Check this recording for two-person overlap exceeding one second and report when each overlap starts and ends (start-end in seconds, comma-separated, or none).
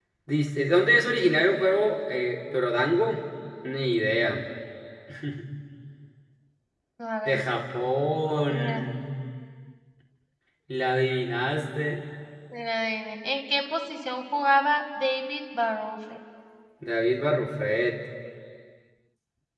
none